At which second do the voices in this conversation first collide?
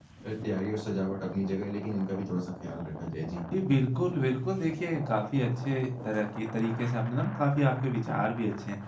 none

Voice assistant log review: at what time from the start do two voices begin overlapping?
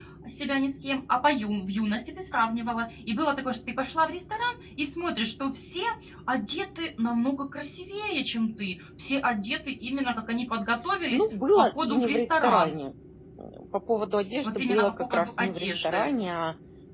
11.1 s

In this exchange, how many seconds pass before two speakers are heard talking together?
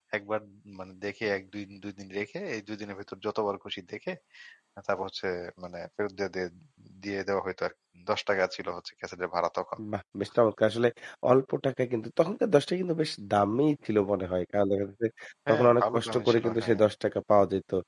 15.5 s

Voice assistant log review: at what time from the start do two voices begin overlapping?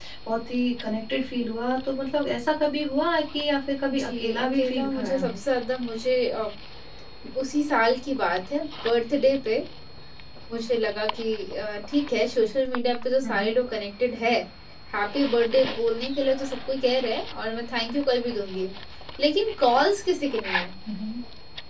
4.0 s

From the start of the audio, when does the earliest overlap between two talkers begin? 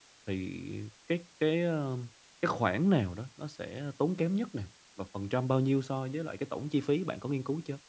none

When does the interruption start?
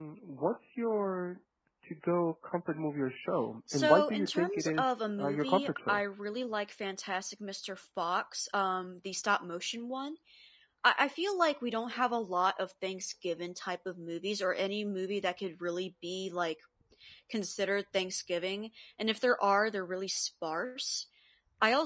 3.7 s

